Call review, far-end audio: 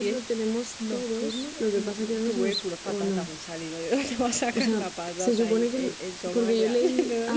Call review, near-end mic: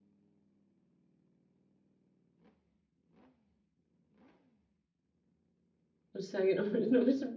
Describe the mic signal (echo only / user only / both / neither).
user only